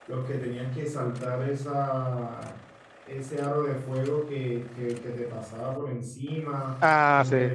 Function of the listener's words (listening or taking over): listening